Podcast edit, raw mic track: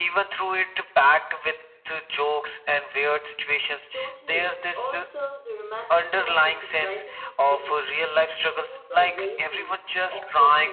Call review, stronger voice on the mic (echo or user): echo